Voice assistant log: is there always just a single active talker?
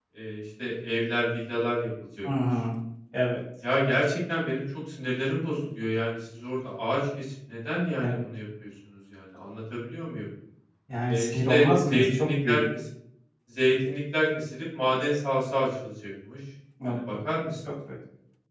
No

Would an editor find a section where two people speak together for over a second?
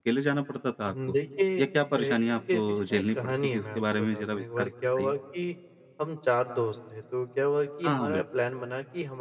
Yes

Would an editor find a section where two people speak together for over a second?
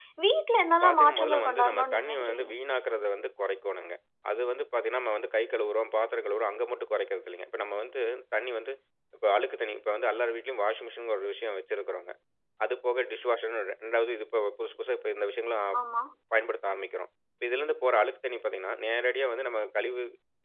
Yes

